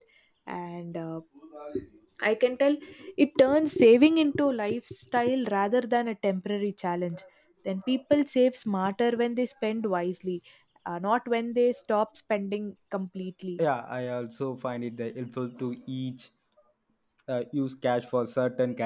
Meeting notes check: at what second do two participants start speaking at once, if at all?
none

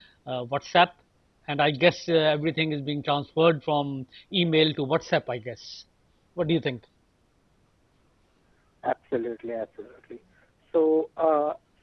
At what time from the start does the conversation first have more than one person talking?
none

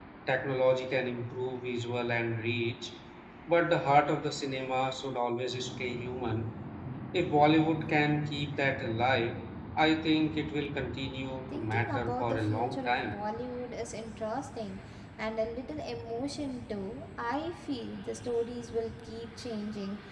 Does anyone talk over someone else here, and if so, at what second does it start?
11.5 s

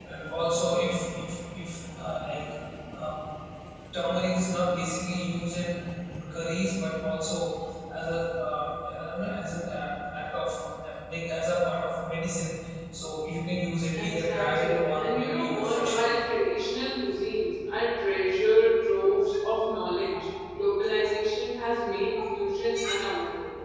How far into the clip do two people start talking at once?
13.9 s

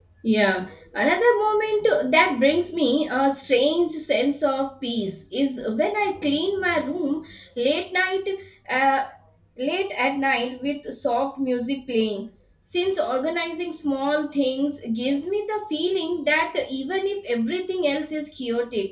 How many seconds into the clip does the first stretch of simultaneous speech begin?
none

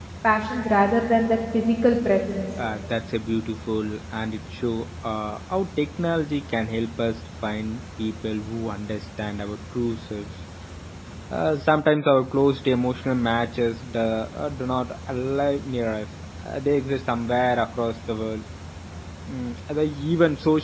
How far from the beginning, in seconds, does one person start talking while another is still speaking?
none

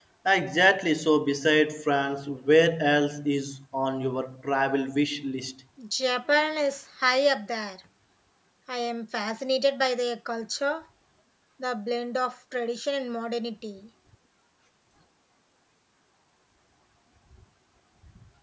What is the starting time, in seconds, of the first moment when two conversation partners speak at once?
none

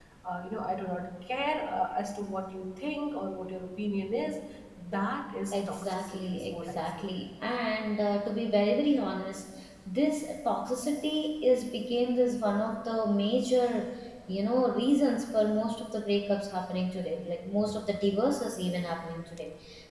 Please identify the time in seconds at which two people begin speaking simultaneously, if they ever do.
5.5 s

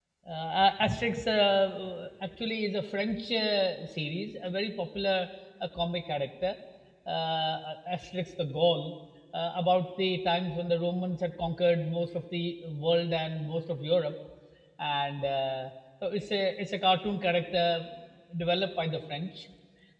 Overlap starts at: none

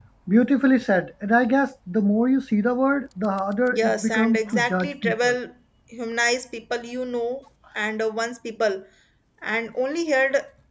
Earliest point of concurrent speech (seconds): 3.7 s

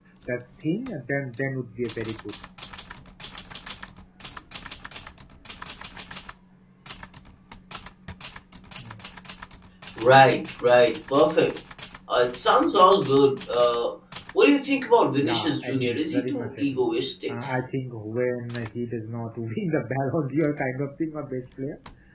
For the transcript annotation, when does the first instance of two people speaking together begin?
15.1 s

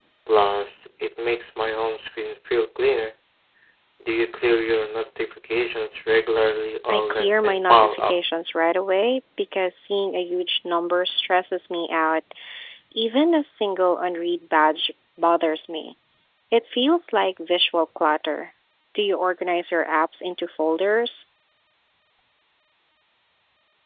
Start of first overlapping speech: 6.9 s

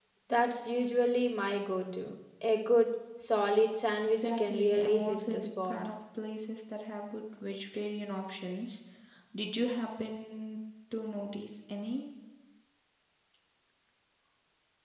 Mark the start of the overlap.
4.1 s

